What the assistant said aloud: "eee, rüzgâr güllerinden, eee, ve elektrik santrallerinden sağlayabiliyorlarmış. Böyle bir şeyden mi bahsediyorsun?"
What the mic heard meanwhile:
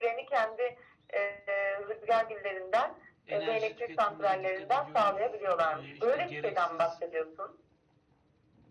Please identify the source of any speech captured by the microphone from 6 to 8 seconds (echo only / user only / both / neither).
both